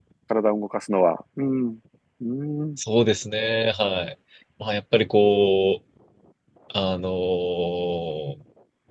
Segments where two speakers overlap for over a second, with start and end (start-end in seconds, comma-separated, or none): none